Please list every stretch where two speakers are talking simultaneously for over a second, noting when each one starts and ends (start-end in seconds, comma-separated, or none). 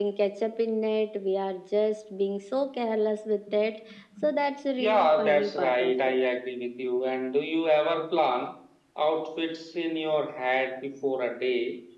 4.8-6.2